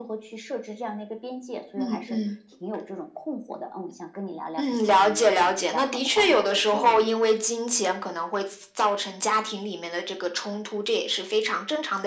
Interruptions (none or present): present